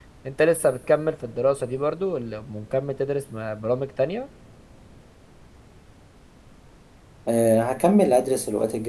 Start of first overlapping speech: none

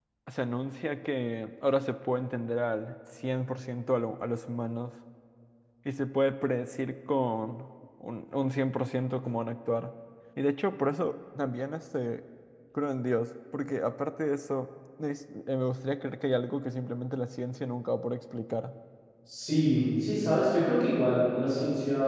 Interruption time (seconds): none

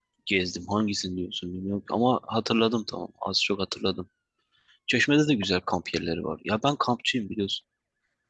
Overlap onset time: none

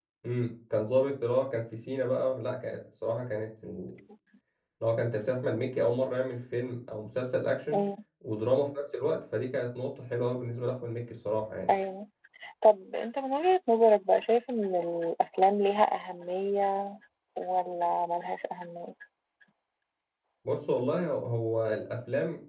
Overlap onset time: none

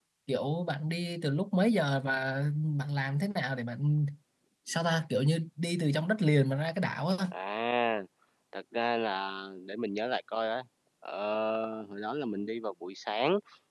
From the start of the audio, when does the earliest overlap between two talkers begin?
none

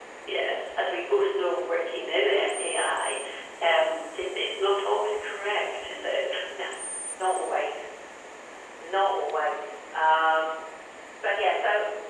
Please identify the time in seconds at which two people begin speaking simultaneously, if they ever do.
none

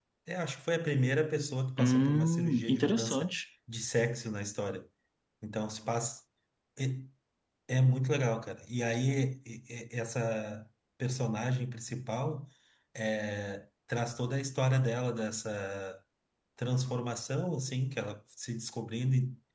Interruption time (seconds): 1.8 s

